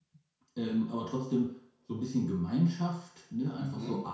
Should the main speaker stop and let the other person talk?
No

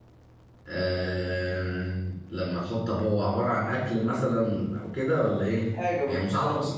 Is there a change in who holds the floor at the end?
Yes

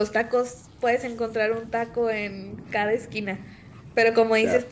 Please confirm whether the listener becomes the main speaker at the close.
No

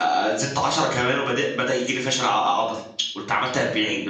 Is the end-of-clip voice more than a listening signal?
No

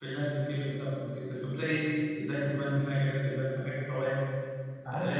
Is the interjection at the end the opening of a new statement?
Yes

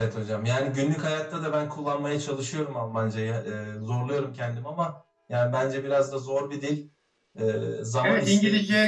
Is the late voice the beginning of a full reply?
Yes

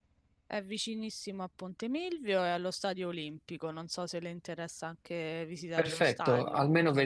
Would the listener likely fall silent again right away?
No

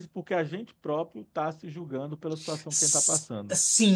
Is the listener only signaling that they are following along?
No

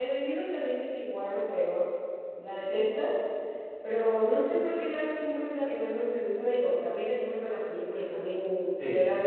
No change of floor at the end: Yes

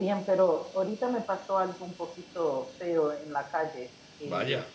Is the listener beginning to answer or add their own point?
No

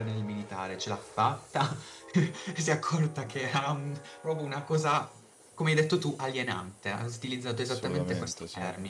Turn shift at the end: No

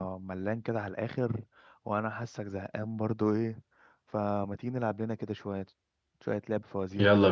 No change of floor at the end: No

